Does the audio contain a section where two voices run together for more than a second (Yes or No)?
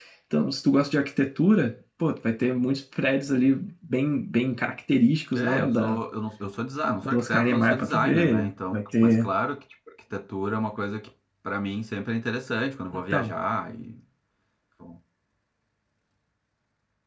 Yes